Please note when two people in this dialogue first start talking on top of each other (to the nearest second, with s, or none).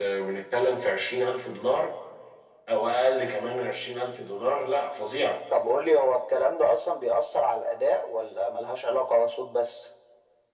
none